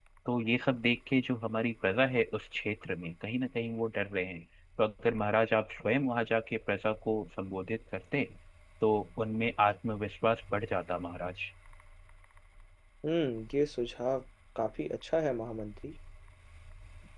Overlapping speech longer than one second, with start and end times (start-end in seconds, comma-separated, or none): none